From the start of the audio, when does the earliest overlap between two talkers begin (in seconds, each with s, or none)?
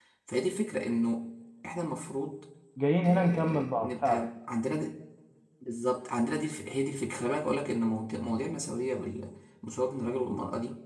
3.0 s